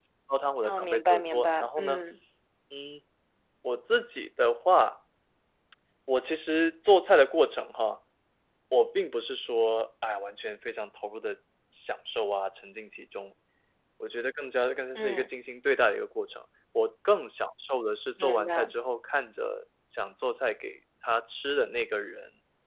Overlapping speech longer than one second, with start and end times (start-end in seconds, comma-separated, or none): 0.6-2.0